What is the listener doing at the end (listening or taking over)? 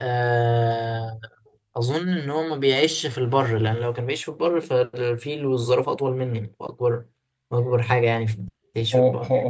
taking over